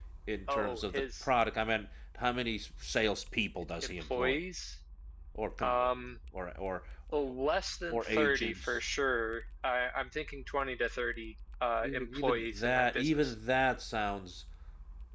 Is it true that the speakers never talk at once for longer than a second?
No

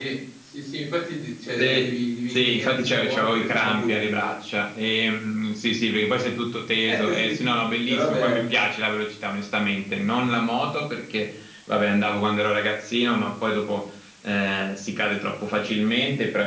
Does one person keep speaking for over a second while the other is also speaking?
Yes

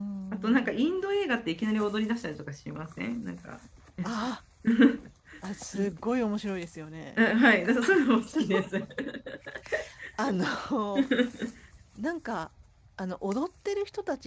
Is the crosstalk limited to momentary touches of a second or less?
Yes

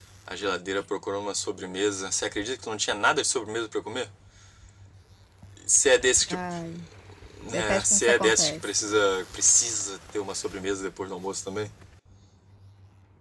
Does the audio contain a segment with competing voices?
Yes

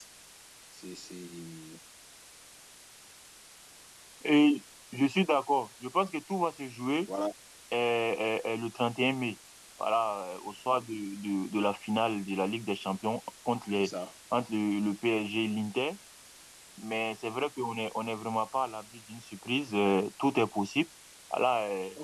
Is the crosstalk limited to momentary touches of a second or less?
Yes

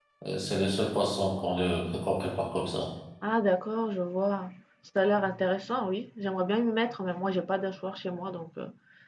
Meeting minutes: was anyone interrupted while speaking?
No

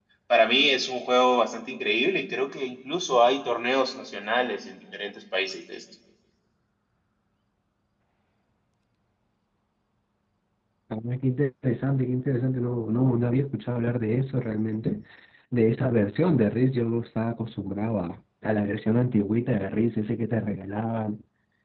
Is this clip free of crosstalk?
Yes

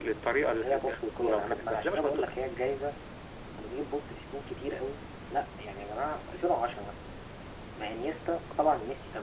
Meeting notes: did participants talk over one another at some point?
Yes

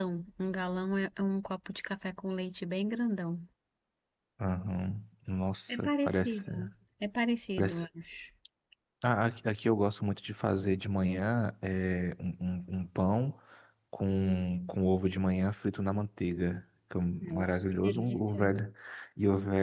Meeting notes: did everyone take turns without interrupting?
No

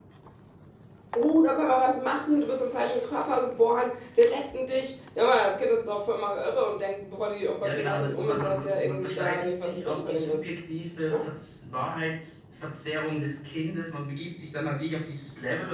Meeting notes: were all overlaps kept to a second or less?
No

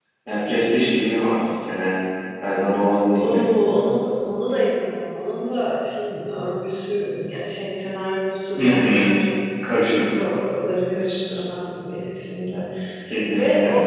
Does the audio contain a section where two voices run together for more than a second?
No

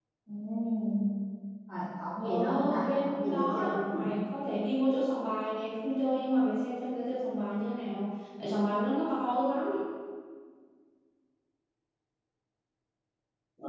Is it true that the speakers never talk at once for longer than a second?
No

